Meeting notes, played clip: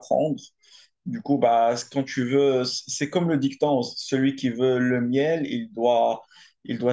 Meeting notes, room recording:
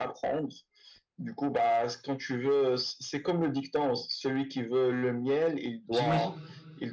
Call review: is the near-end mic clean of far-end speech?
No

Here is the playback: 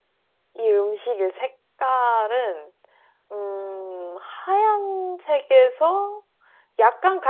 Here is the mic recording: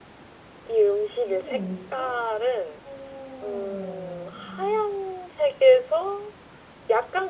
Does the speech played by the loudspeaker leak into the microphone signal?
Yes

